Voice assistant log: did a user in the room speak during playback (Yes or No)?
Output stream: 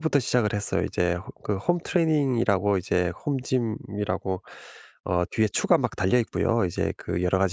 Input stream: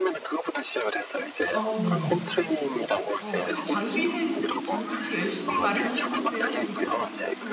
Yes